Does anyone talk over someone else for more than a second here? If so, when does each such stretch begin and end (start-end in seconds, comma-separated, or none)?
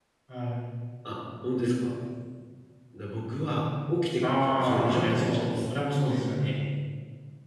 4.2-5.5